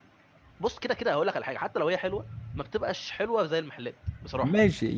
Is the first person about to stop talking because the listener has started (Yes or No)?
Yes